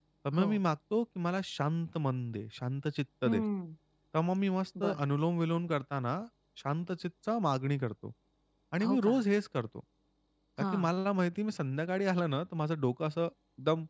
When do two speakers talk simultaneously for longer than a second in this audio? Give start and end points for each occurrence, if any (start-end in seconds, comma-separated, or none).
none